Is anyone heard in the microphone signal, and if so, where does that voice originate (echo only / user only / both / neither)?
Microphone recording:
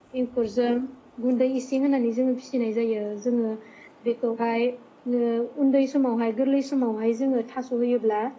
echo only